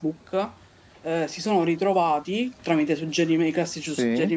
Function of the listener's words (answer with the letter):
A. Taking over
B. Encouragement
B